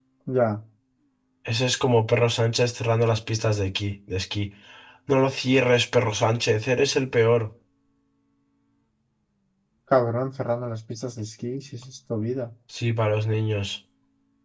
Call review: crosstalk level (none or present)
none